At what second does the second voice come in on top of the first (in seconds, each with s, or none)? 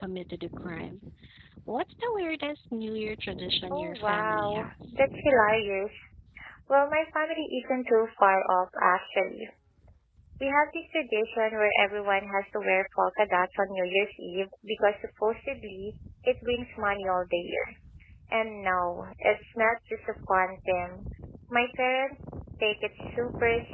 3.7 s